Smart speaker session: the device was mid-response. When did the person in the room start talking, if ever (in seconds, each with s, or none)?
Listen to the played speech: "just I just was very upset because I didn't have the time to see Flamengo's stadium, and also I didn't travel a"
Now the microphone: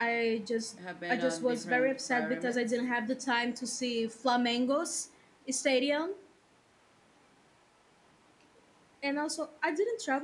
0.8 s